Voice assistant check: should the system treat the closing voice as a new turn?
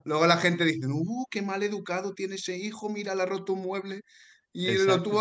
No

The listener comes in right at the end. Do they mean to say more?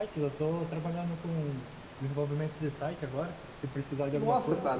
Yes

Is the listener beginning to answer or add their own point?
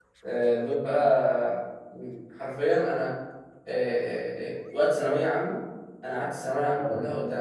No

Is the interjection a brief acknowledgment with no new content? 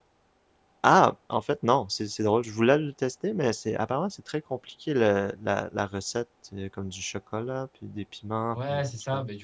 No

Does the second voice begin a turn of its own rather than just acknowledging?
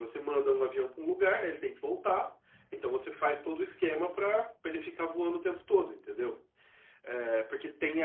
No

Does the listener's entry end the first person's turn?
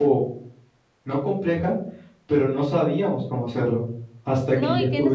Yes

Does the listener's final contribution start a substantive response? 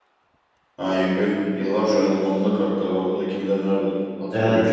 Yes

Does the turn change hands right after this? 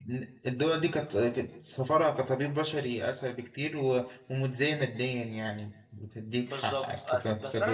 Yes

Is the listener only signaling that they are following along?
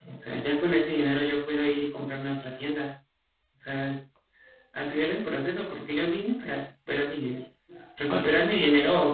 Yes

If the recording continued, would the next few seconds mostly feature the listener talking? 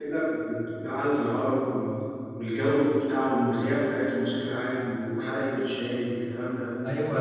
Yes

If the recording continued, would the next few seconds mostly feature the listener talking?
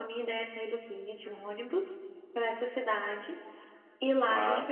No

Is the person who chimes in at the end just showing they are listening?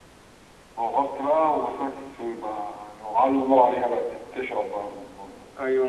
No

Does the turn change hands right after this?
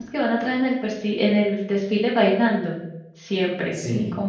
No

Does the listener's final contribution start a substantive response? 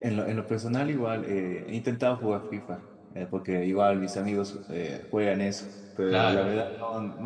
No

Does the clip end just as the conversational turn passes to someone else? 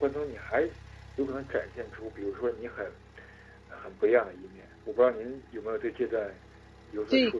Yes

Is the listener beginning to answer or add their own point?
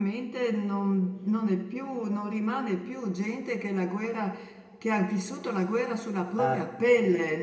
No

